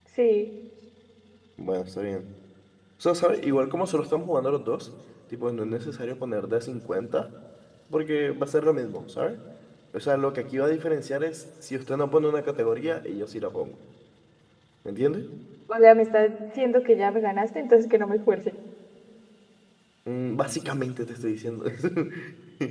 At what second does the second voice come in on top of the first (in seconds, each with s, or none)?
none